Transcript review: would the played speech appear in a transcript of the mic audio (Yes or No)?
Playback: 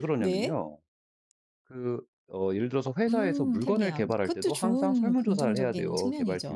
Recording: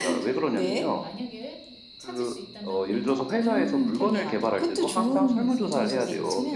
Yes